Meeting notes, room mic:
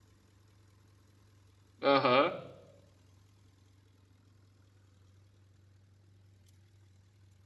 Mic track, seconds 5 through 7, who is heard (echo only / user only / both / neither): neither